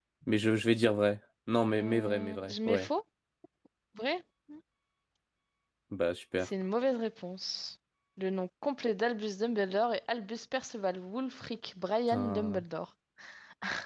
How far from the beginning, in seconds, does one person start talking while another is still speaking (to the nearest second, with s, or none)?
2 s